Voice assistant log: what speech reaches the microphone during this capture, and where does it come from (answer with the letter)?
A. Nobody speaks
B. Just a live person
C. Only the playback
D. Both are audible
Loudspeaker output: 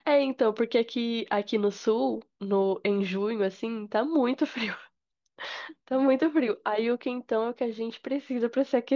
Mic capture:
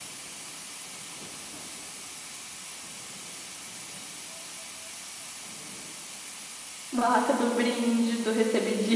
B